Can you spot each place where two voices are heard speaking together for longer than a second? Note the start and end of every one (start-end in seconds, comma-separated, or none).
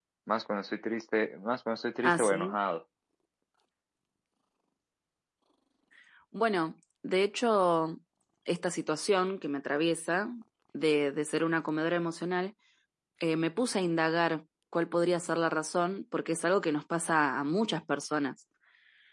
none